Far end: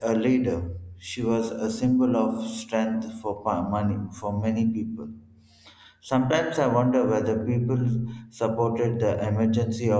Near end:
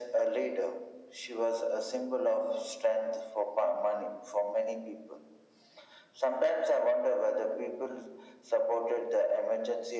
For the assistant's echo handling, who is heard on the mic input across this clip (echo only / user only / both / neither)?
echo only